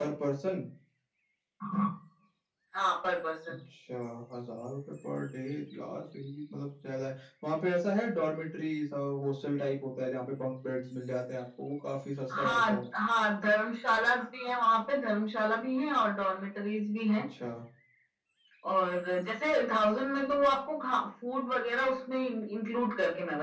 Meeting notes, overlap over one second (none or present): none